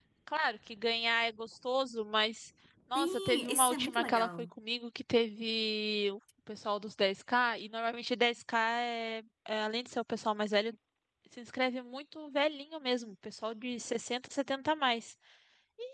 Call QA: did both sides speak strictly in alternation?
No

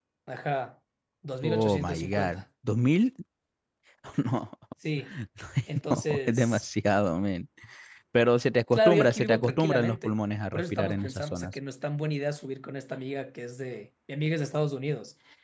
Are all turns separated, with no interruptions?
No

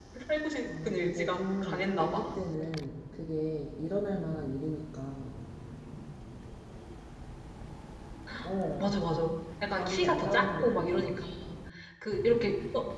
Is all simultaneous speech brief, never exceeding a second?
No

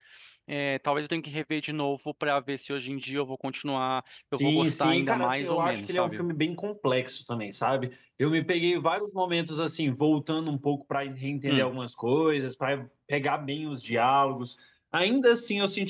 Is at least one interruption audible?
Yes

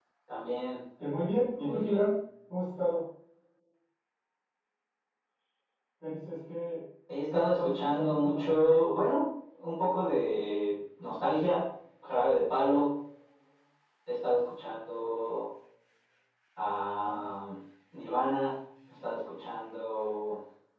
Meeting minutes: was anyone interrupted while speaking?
Yes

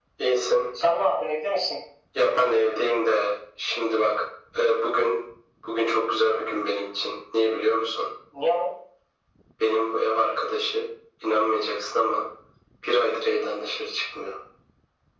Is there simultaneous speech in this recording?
No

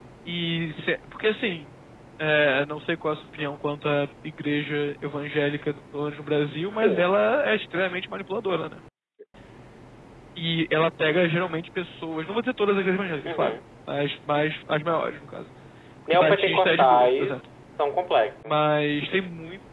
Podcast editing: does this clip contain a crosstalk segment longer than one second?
Yes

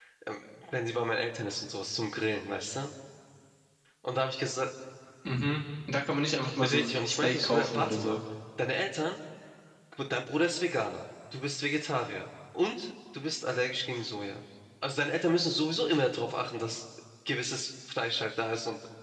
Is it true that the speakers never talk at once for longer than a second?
No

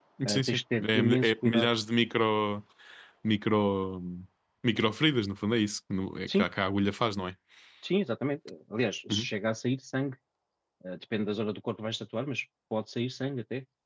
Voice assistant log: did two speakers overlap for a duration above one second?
Yes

